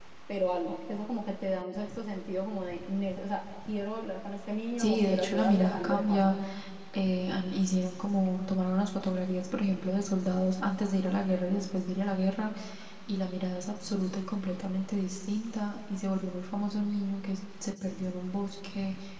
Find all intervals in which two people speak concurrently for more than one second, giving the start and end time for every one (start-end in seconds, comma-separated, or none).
4.8-6.3